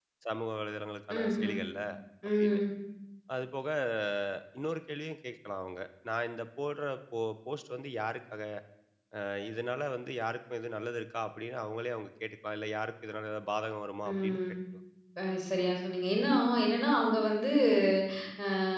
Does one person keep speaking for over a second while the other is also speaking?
No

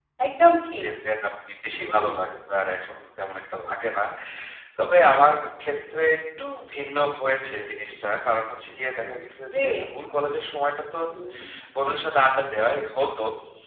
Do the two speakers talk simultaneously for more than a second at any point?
No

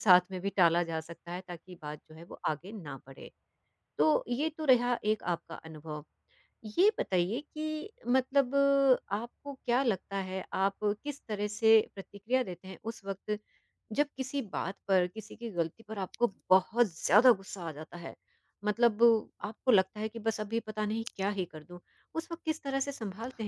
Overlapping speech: No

